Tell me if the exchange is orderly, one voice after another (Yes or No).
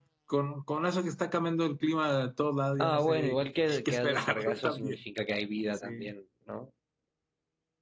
No